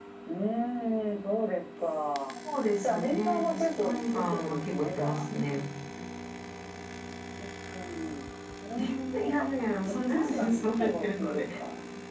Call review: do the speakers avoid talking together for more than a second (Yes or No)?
No